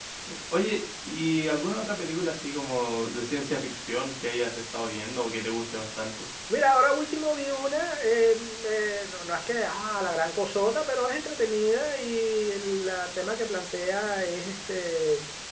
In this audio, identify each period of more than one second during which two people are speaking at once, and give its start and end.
none

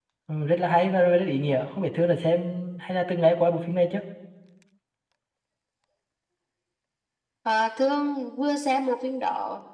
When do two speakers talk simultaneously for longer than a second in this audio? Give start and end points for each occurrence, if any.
none

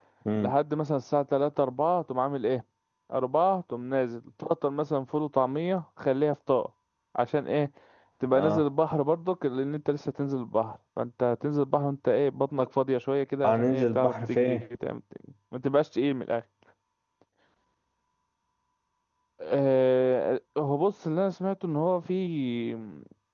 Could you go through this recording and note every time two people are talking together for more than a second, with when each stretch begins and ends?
13.4-14.6

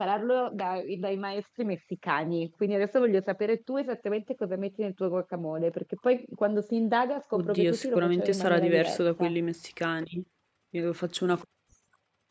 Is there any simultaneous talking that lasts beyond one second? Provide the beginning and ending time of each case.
7.4-9.3

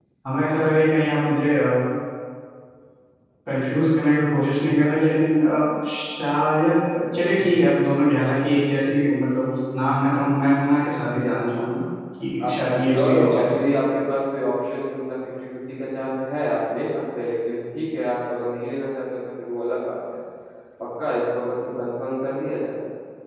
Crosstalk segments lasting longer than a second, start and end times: 12.4-13.6

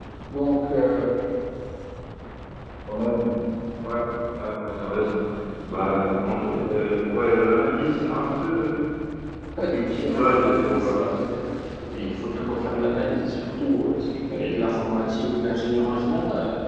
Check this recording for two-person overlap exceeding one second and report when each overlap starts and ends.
9.7-11.1

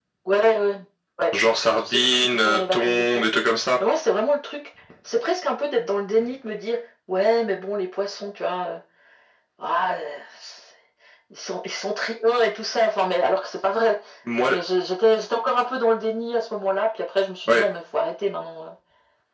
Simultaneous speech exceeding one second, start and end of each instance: 1.9-3.3

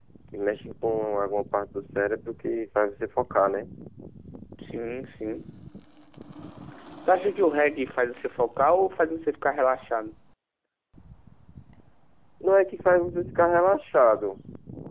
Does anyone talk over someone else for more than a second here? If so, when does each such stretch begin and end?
none

